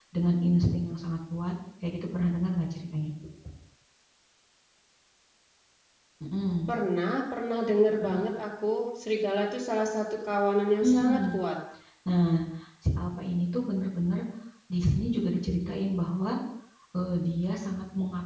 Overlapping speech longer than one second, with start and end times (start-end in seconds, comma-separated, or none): none